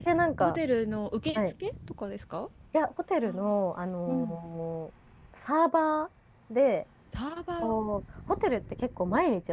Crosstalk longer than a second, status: none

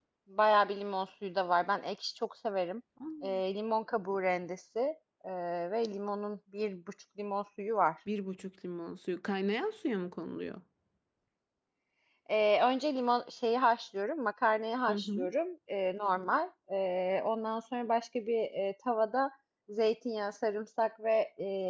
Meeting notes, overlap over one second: none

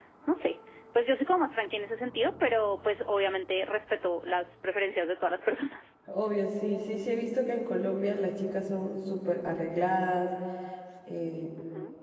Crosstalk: none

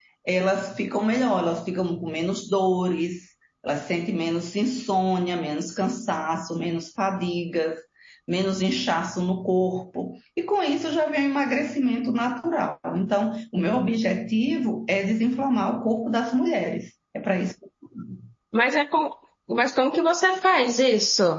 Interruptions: none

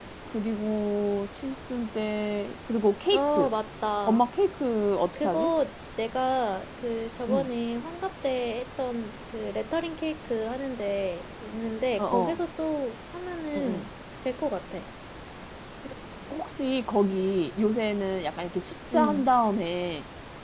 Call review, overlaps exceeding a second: none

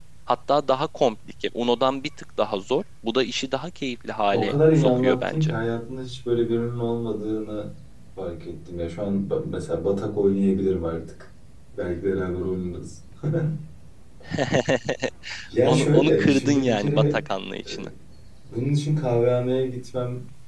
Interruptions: present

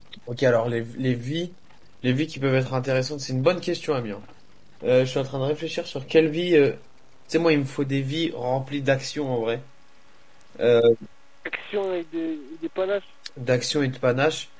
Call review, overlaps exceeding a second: none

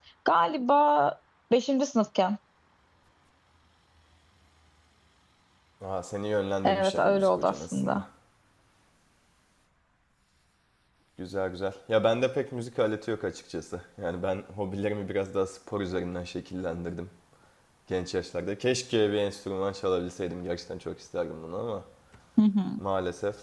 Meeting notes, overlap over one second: present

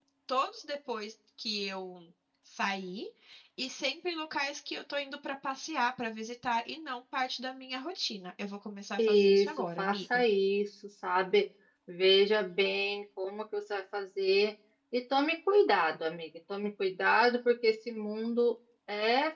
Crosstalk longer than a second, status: present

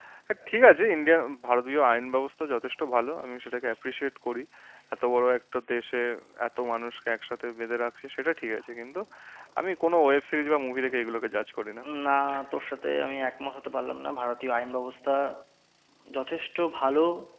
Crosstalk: none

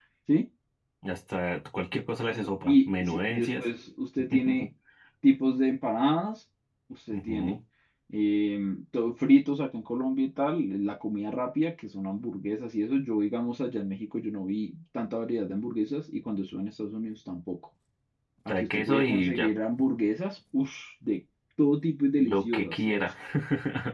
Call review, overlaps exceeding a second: present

